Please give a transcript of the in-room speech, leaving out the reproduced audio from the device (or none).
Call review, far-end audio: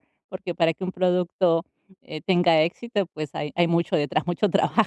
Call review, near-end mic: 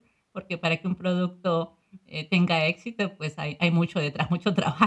none